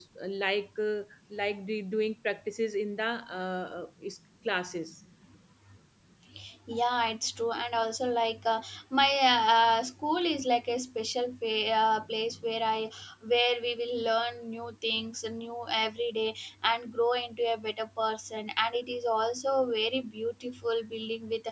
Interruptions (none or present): none